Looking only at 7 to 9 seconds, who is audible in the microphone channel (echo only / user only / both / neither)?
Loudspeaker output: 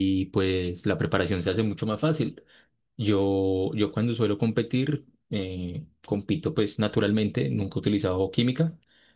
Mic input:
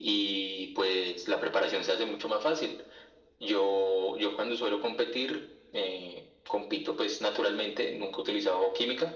echo only